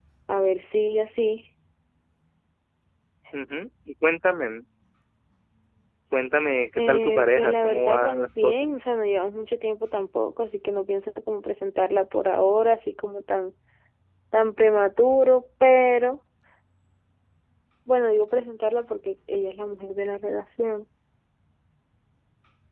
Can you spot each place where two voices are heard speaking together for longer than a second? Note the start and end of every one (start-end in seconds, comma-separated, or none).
6.8-8.7